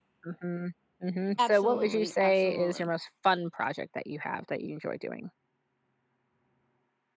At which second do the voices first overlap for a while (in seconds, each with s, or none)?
1.4 s